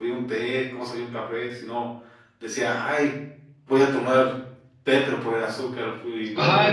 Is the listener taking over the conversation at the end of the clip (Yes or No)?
Yes